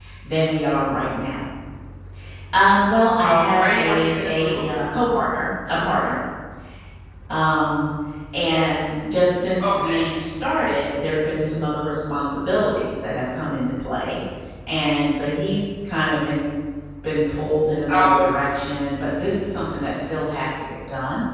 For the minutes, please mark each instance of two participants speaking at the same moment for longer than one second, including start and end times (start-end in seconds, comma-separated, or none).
3.2-4.7